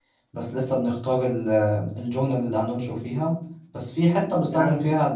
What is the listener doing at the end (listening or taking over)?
listening